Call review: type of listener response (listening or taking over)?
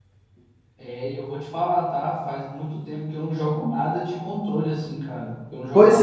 taking over